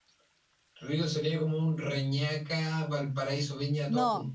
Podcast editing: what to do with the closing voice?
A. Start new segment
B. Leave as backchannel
A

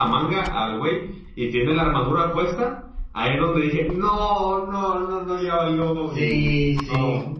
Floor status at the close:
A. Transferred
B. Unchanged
A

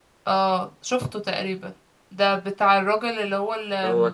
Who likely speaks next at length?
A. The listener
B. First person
B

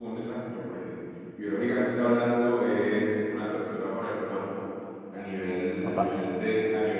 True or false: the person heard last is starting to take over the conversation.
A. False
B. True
A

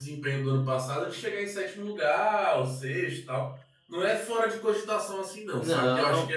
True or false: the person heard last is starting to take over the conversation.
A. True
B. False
A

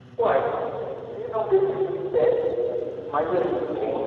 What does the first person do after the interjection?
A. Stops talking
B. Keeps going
B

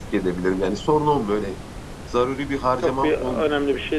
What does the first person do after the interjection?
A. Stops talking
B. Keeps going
A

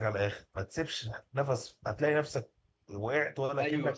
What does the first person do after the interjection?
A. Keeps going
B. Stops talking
B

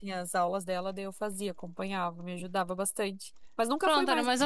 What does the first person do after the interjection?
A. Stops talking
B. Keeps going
A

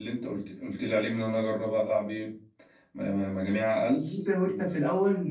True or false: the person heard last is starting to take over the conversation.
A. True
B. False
A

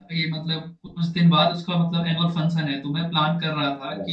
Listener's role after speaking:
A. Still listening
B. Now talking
A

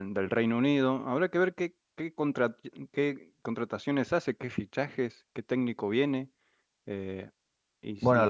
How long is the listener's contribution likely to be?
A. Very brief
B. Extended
B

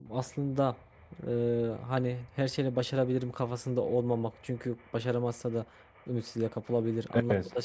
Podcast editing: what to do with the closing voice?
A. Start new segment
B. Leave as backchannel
B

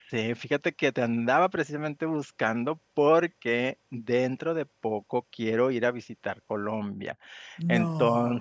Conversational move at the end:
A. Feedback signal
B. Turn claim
A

